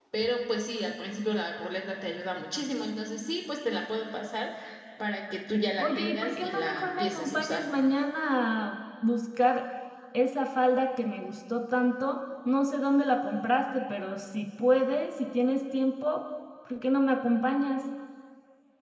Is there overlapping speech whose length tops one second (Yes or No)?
Yes